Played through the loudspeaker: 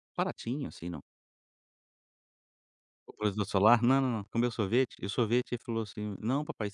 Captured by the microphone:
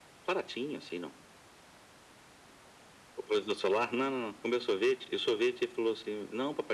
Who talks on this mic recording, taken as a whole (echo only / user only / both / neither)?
echo only